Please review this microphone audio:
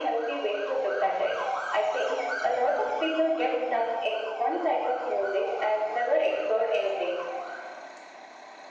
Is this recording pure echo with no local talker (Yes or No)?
Yes